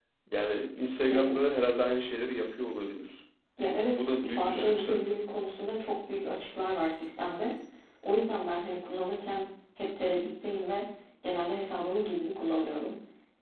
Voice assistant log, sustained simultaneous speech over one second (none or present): present